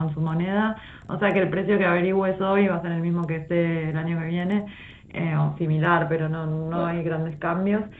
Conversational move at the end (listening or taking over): listening